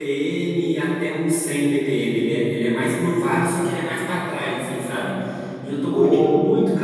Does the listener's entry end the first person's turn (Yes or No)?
No